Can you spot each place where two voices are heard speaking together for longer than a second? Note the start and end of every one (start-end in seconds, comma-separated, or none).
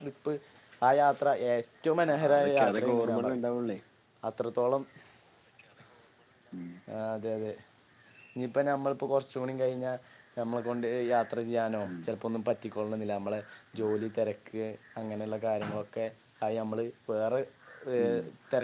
2.0-3.4